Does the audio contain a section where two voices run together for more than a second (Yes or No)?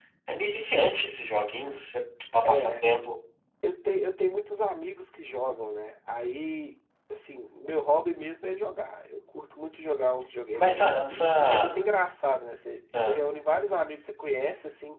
Yes